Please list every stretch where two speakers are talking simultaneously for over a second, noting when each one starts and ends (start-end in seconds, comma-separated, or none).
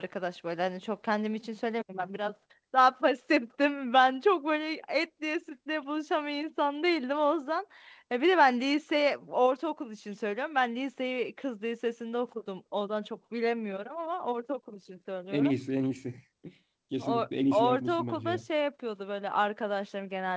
17.0-18.4